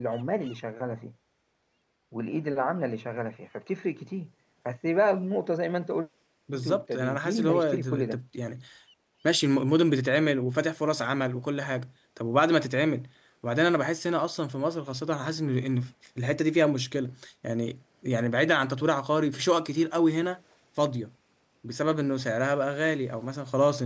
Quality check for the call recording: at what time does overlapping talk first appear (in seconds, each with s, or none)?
6.5 s